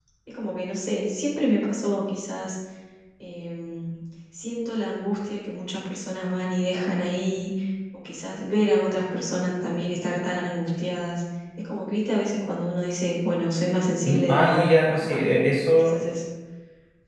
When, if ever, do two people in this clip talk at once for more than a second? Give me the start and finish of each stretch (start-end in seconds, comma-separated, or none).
14.1-15.3